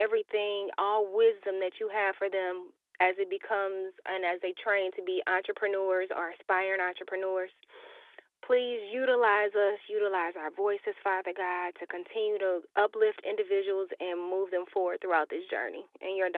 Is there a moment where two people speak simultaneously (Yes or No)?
No